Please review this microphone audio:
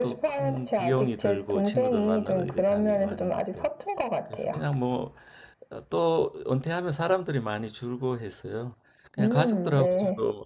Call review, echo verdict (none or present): present